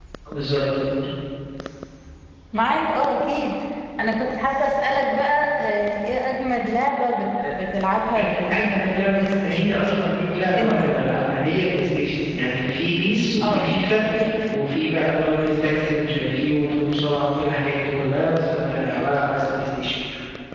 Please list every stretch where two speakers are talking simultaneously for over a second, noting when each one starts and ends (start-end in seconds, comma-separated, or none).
8.2-9.6